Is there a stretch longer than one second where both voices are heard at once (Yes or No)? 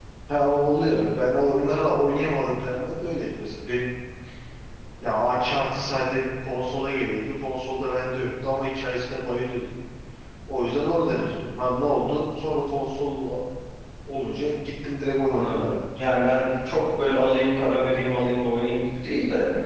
No